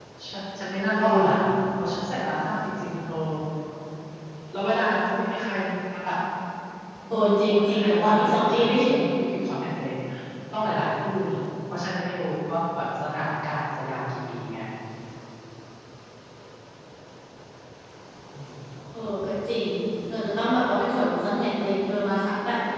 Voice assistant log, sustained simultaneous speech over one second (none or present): present